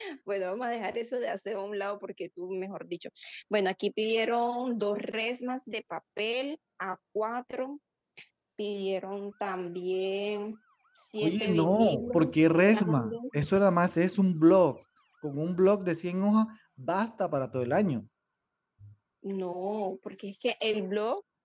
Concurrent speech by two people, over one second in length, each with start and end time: 11.2-13.2

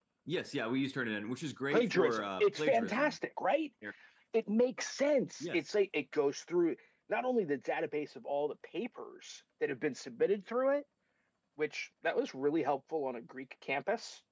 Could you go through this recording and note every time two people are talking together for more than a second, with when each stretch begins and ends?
1.7-3.2

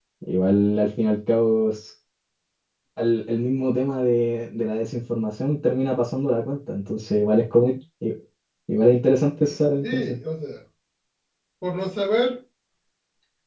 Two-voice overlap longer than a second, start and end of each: none

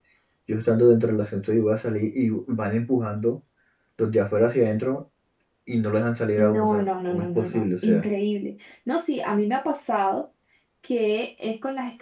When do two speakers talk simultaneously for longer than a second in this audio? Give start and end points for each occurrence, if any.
6.4-8.1

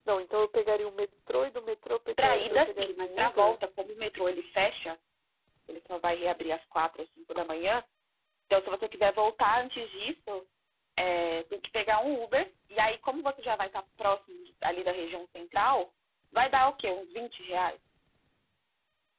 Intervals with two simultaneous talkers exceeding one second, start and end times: 2.2-3.6

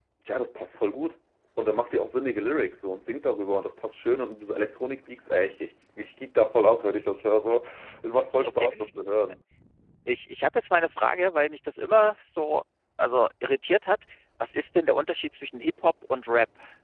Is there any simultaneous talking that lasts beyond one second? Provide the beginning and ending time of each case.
none

